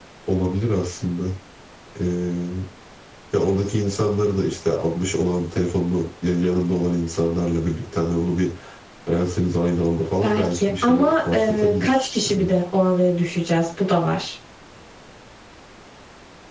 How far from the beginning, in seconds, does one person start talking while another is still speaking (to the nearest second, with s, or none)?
10 s